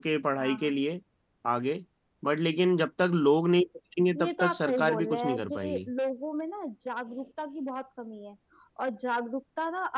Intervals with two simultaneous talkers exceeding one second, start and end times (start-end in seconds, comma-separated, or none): 4.2-5.9